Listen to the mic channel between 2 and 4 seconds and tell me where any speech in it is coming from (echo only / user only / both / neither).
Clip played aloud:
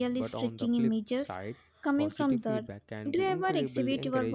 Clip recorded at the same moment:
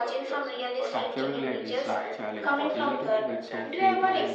both